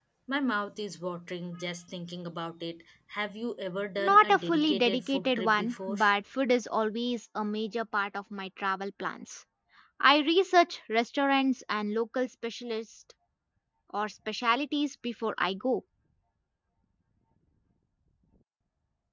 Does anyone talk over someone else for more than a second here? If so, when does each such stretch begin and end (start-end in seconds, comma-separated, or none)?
4.0-6.0